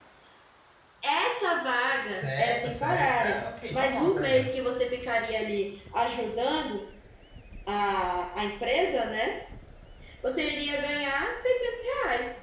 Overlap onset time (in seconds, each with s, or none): 2.1 s